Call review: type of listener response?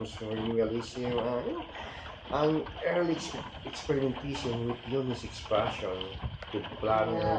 listening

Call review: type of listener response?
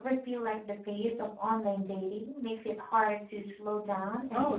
taking over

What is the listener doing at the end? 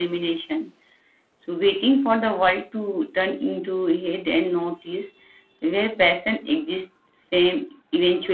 taking over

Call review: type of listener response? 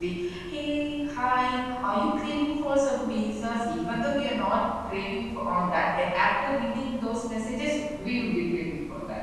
taking over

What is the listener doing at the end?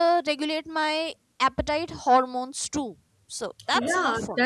taking over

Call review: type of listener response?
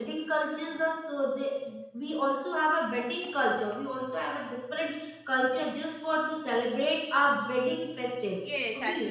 taking over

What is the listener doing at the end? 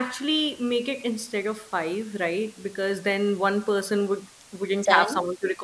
listening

